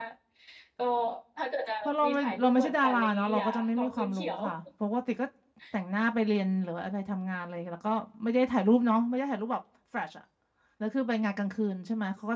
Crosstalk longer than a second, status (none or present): present